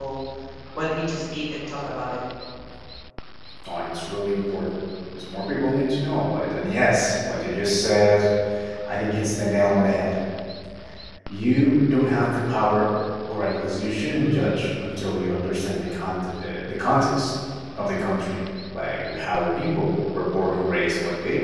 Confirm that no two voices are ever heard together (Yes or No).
Yes